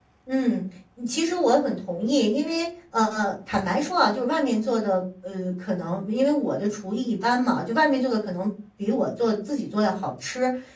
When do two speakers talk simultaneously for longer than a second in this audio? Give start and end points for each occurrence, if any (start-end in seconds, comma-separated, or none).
none